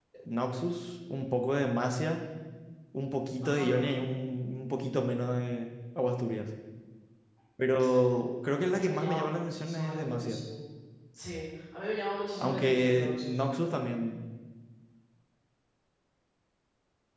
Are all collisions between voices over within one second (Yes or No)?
No